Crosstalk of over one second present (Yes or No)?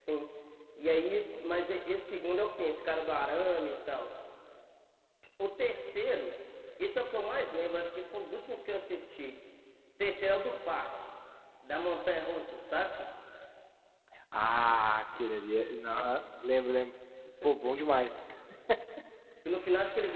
No